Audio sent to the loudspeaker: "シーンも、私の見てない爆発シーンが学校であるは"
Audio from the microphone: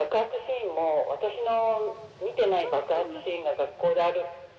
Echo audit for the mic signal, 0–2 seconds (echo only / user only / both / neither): echo only